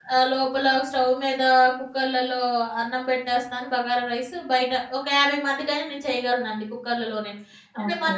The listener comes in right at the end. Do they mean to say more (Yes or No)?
Yes